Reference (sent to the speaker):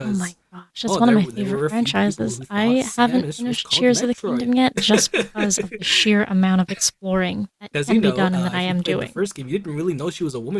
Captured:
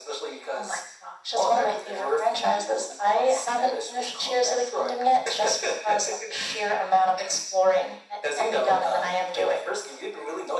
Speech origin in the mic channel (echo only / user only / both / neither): echo only